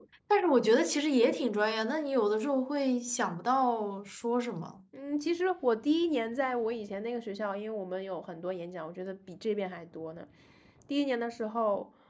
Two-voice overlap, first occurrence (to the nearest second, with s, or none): none